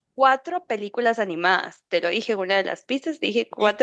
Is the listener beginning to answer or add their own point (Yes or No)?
Yes